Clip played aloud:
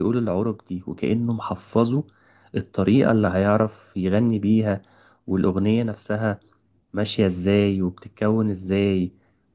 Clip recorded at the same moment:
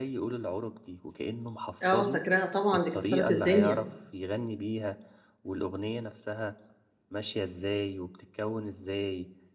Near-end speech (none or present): present